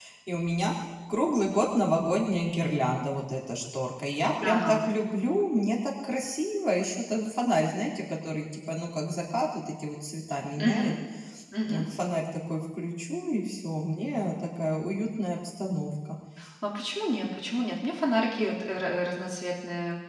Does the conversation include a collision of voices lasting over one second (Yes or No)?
No